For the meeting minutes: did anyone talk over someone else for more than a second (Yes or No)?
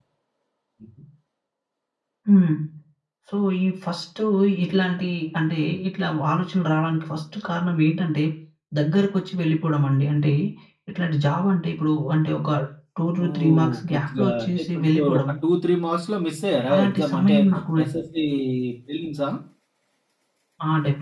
Yes